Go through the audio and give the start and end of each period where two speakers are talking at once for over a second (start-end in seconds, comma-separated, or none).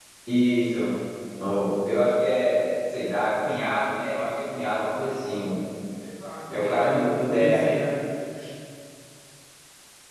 6.5-7.8